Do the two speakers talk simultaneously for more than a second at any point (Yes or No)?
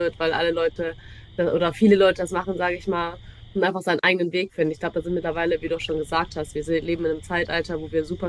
No